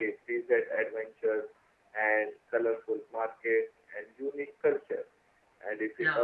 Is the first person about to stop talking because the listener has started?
No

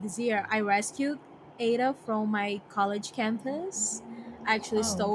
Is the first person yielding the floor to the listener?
No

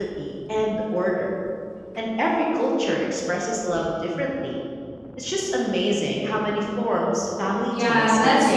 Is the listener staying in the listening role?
No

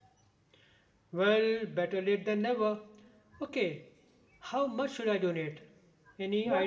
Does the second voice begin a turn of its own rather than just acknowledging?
Yes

